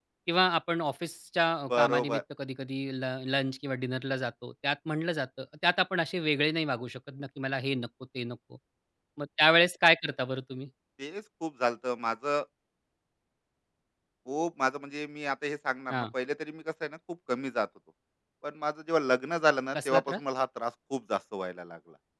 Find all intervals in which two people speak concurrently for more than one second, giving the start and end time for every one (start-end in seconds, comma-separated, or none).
none